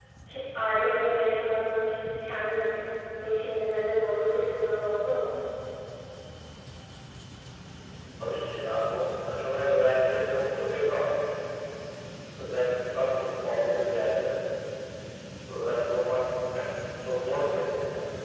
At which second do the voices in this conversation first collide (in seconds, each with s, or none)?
none